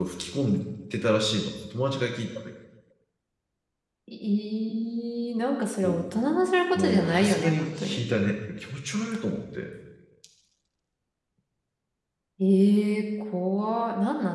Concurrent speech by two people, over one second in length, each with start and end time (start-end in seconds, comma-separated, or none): 6.8-8.1